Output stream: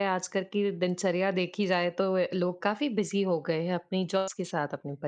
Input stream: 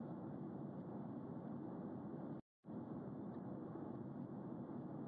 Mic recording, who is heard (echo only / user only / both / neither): neither